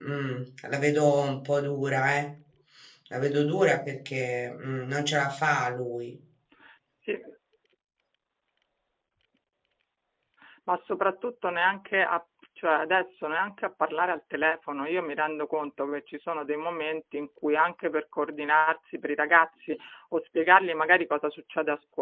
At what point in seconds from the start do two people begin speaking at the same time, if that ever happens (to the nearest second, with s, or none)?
none